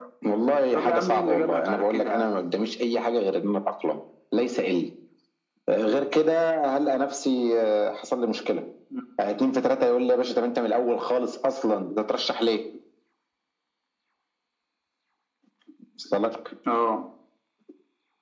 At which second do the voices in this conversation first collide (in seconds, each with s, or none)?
0.7 s